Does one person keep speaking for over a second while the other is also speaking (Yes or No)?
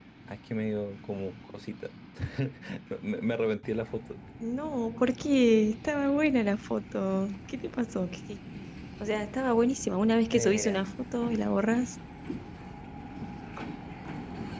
No